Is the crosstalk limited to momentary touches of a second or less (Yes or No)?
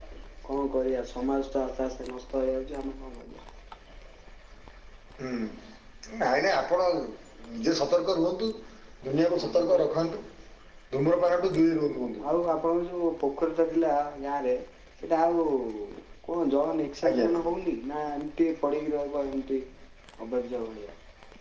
Yes